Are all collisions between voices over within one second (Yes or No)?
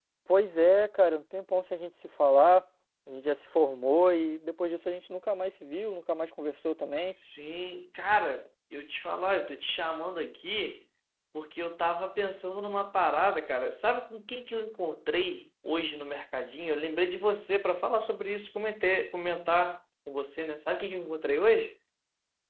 Yes